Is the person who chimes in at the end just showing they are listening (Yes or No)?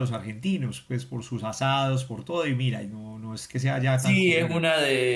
No